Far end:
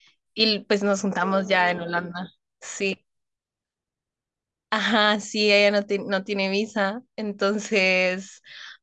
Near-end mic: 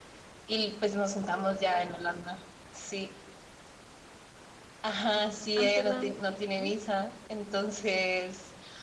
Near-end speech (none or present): present